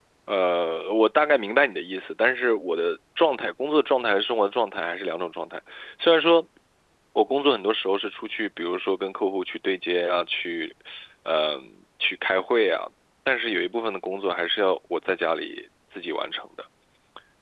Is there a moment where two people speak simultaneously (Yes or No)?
No